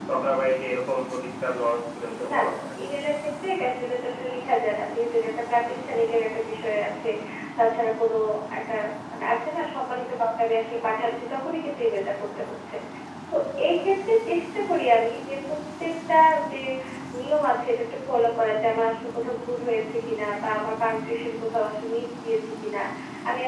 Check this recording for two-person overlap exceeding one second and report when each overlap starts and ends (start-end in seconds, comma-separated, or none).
none